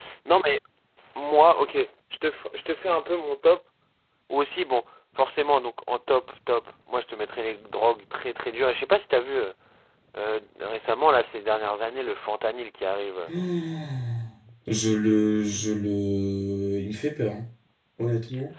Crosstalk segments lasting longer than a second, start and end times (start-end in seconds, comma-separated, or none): none